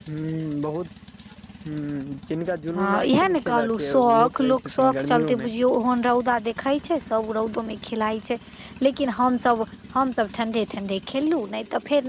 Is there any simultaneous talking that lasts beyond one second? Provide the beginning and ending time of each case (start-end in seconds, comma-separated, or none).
2.8-5.5